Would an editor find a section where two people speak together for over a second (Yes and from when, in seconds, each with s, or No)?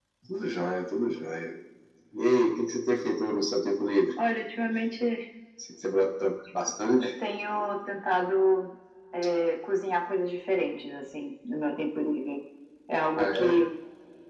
No